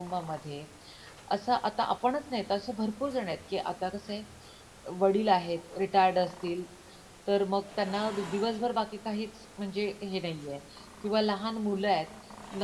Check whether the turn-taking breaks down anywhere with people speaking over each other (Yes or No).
No